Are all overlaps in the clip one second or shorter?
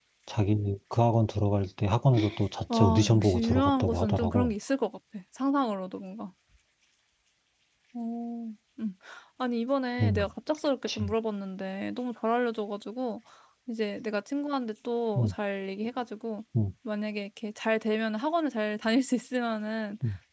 No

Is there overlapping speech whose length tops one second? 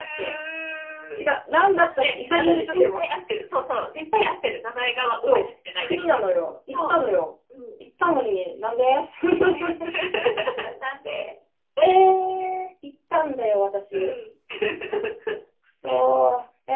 Yes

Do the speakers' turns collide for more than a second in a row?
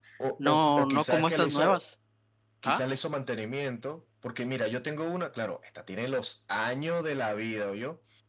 Yes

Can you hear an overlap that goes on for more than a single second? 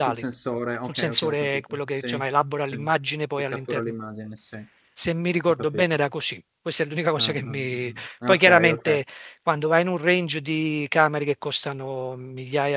Yes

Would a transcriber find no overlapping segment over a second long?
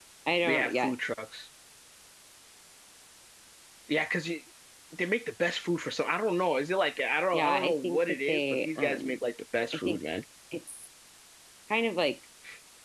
No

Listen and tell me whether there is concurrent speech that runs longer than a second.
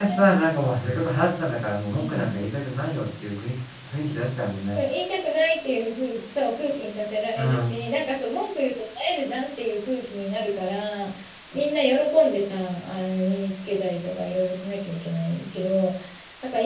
No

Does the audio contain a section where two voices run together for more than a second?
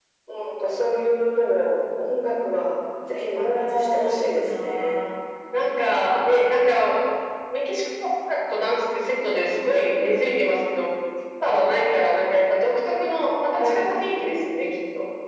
Yes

